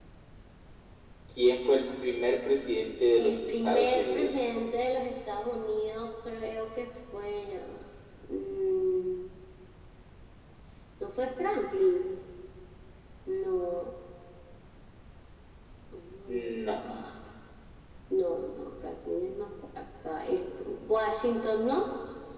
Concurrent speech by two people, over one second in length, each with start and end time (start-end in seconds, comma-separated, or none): 3.2-4.4